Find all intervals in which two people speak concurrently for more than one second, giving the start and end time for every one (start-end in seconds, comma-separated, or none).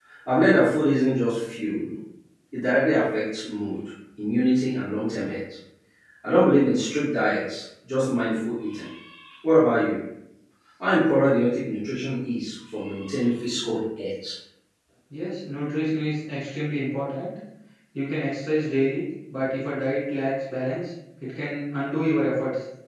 none